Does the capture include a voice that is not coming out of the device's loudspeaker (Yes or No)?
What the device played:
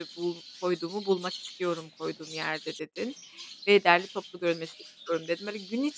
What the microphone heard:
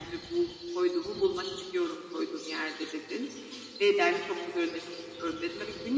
No